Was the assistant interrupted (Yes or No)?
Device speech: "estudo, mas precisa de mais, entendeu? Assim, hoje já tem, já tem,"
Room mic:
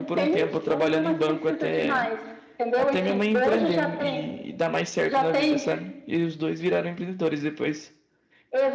Yes